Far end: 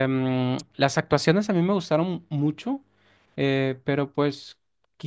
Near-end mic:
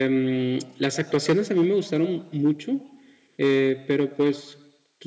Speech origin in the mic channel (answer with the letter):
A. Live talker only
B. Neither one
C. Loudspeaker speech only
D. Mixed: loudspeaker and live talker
C